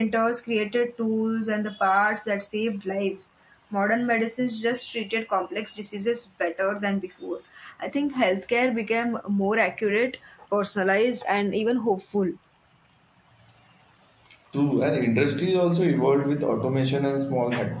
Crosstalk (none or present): none